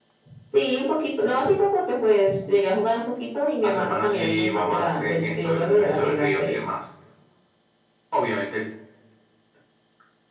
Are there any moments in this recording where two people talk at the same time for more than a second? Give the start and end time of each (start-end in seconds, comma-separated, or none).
3.7-6.6